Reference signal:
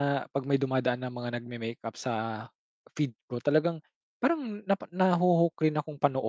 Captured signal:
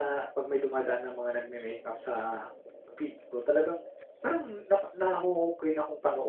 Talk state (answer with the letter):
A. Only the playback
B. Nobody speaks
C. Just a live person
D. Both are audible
A